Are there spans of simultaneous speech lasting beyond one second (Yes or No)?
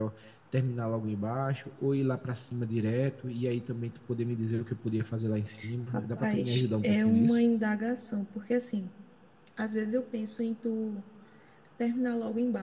Yes